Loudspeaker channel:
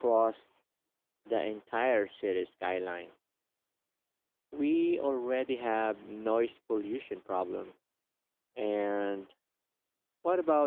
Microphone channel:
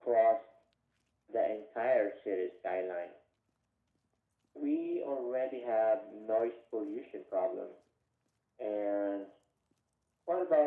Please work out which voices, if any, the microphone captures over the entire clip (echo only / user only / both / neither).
echo only